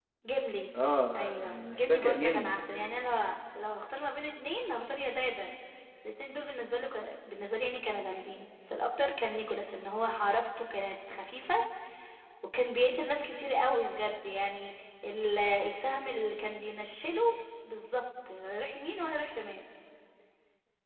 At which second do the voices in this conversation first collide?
1.2 s

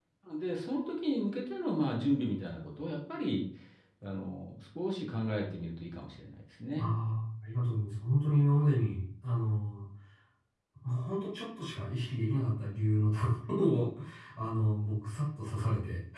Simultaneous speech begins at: none

